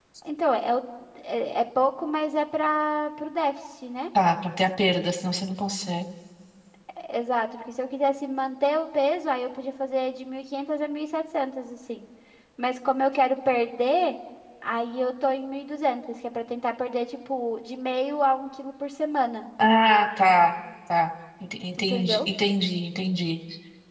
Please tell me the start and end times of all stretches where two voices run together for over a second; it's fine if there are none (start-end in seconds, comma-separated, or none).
none